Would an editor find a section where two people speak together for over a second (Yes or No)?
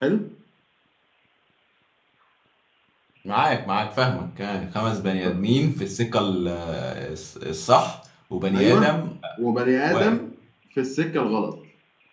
No